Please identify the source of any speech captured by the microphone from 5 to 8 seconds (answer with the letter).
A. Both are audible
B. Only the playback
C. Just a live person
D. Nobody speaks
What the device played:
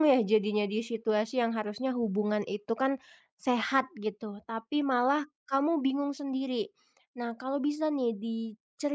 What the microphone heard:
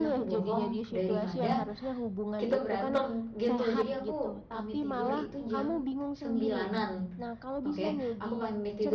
A